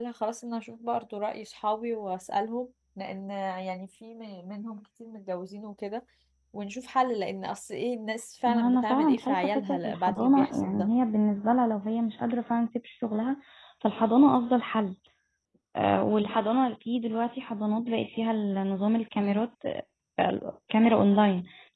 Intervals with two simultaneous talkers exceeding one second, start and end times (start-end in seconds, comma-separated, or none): 8.5-10.9